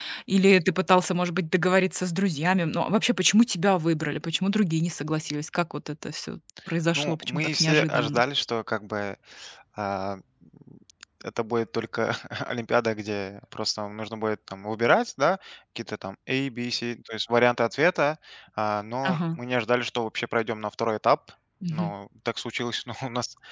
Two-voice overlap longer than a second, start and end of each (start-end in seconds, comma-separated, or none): 7.0-8.2